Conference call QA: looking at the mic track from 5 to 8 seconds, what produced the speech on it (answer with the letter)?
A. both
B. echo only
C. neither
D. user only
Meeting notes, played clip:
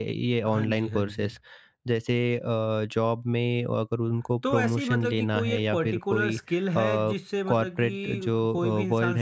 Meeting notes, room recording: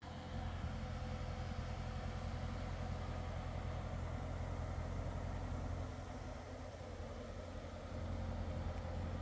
C